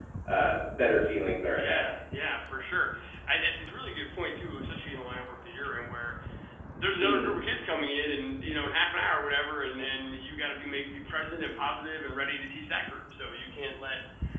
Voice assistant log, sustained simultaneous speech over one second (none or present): none